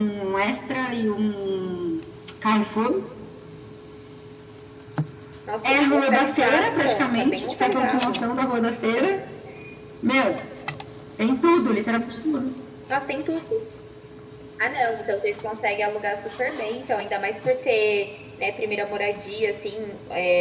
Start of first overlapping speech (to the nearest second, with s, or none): 6 s